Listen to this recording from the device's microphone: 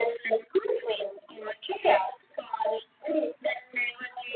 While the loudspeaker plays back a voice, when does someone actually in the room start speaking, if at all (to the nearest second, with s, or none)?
none